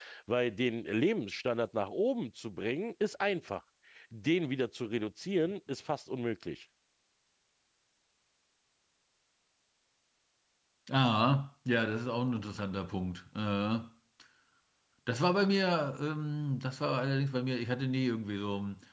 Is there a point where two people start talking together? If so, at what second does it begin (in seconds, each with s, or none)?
none